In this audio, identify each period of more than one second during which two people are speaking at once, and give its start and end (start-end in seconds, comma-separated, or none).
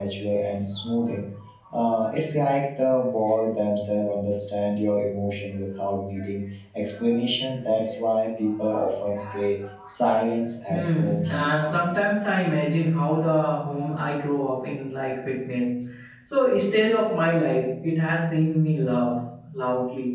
10.7-12.0